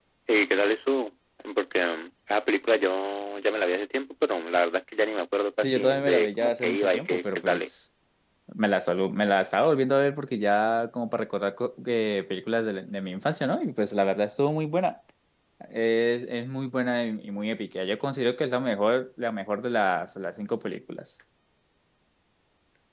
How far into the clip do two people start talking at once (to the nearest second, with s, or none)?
6 s